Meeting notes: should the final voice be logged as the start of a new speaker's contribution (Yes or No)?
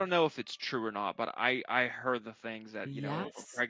No